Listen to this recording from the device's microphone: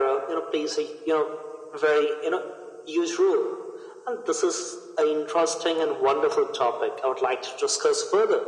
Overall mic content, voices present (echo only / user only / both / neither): echo only